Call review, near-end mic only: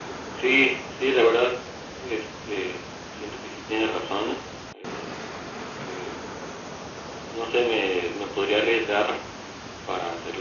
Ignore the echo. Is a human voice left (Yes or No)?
No